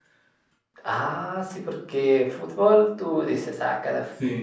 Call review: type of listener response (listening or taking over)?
listening